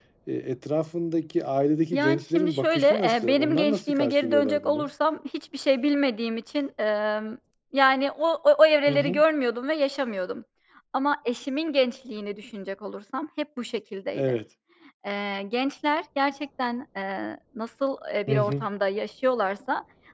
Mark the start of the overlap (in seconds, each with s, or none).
1.9 s